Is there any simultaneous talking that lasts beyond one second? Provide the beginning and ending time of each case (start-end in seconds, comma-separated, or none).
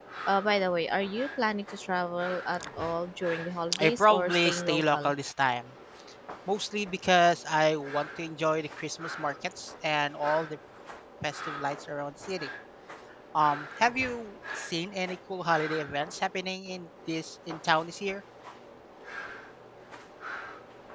3.8-5.1